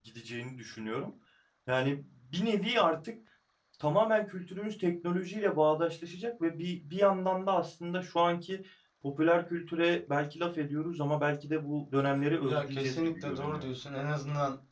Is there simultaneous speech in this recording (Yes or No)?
Yes